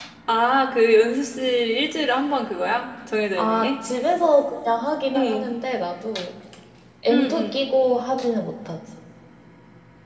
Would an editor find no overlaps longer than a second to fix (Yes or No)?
Yes